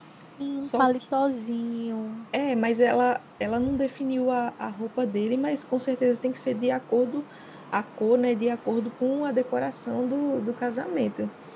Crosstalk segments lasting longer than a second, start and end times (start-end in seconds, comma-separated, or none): none